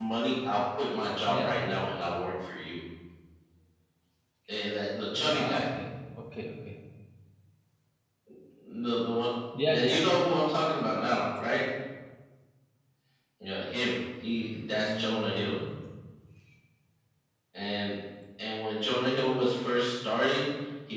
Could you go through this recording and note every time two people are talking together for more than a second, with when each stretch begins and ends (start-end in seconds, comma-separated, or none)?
14.4-15.6